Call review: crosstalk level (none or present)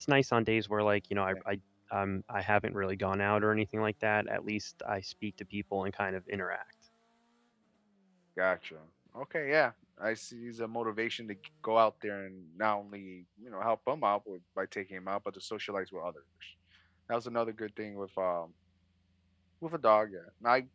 none